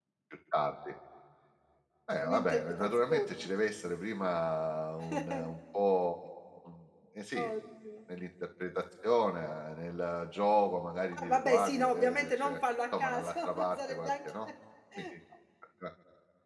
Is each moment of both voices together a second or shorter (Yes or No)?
No